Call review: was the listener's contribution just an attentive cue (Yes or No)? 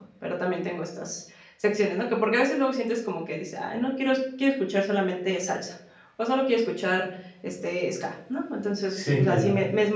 Yes